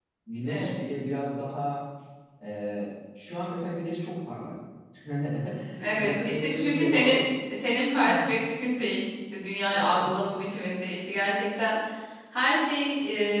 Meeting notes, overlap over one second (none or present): present